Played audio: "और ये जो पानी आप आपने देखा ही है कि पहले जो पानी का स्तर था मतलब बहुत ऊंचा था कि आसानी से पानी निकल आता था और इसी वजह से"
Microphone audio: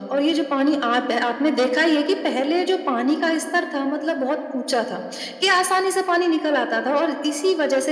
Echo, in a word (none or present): present